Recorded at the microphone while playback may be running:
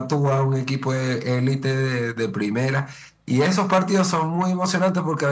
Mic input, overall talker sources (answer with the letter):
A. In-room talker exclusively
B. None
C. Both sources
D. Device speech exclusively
D